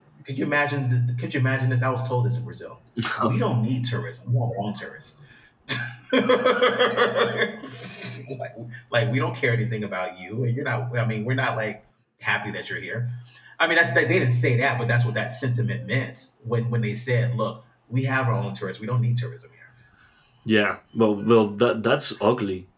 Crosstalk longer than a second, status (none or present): none